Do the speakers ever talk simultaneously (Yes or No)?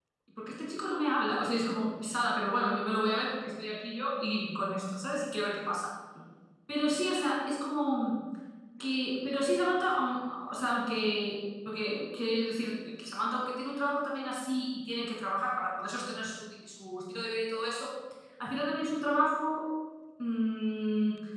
No